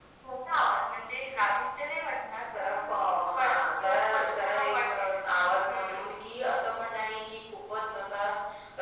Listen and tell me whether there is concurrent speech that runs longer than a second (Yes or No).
Yes